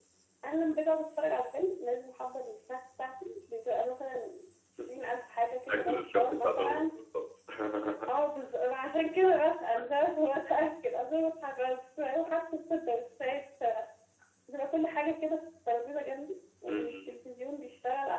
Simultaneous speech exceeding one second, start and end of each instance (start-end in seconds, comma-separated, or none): 5.7-6.9